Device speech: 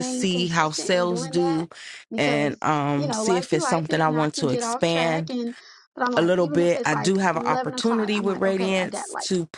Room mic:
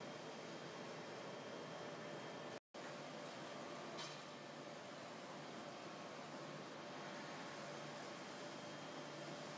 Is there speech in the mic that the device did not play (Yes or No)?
No